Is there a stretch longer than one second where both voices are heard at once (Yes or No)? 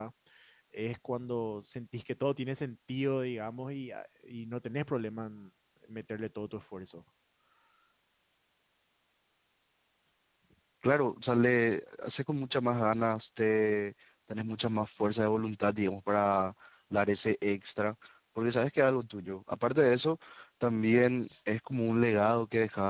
No